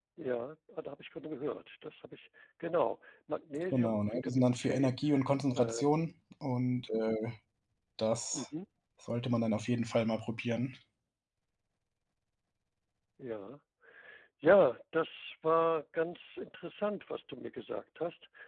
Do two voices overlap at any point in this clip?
Yes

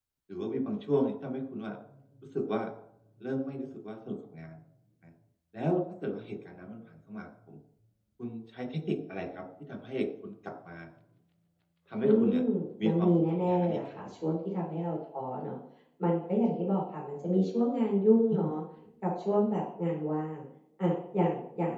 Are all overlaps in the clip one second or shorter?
No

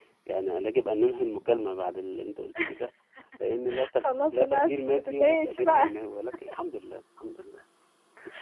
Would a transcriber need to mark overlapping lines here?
Yes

